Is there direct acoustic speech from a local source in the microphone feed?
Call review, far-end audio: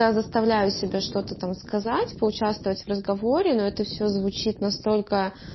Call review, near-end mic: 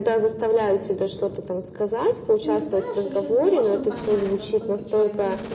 Yes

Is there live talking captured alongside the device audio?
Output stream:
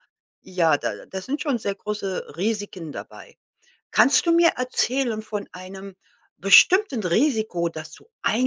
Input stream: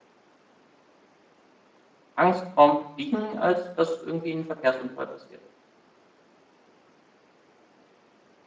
Yes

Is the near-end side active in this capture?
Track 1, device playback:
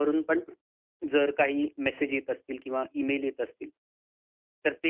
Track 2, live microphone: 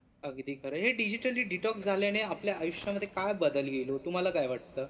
Yes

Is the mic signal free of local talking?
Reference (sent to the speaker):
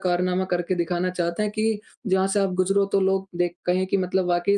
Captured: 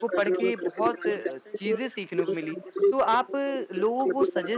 No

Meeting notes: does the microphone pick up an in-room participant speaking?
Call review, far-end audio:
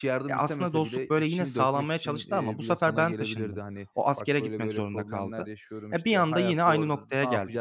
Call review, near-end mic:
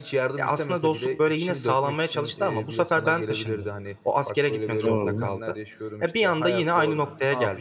Yes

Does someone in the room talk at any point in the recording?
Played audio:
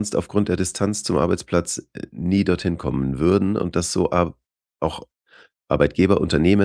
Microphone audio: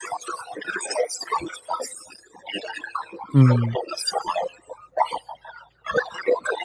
Yes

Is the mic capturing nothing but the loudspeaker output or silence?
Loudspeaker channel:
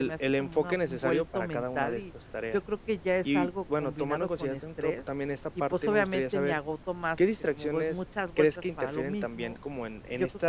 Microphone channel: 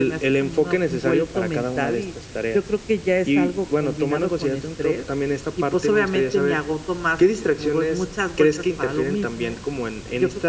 Yes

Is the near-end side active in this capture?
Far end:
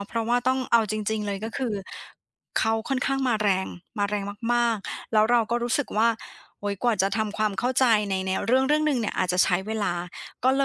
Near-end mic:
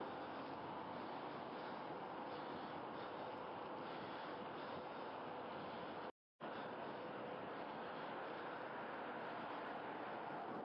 No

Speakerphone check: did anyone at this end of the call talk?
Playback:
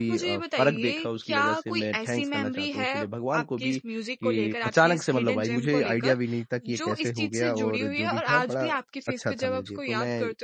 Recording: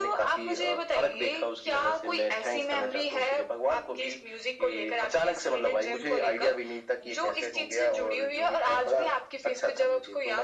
No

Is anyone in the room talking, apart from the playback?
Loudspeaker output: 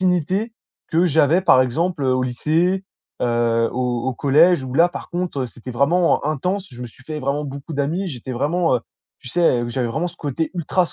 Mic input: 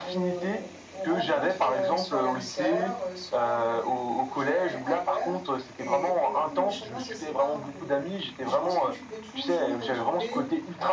Yes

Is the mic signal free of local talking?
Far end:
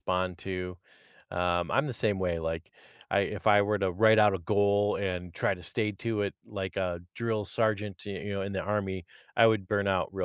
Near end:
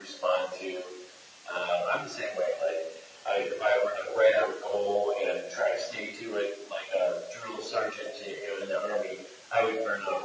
Yes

